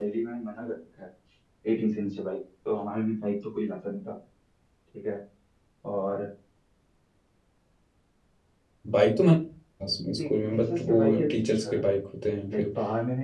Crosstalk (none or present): present